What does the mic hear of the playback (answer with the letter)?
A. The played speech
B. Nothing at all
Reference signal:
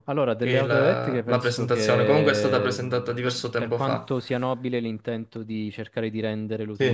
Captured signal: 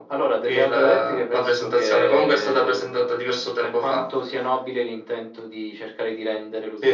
A